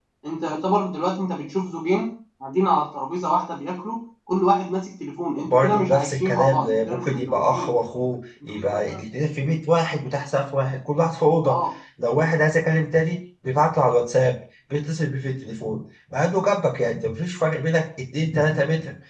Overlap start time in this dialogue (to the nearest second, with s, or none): 5 s